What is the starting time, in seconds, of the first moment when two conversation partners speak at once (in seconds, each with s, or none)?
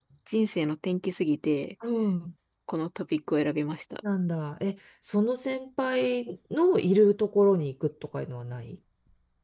none